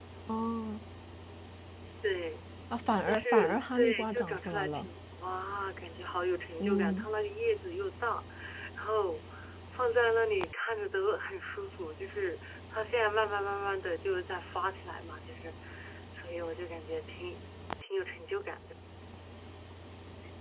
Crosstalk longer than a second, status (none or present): present